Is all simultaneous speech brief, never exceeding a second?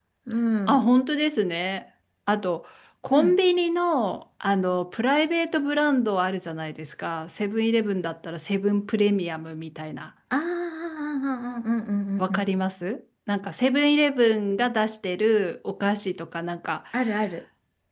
Yes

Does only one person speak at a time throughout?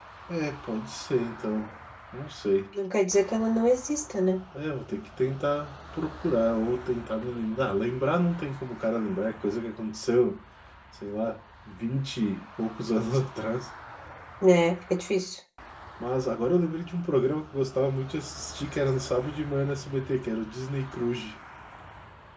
Yes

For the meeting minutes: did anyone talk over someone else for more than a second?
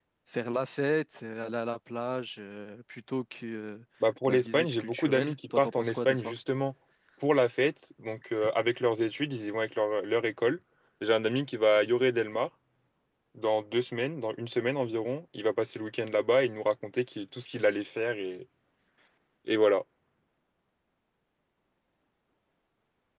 Yes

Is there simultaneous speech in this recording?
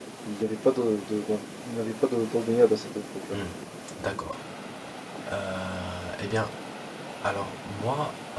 No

